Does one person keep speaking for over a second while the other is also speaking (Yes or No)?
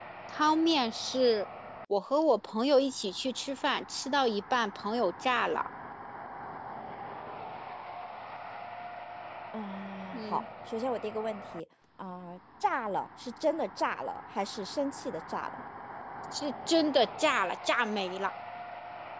No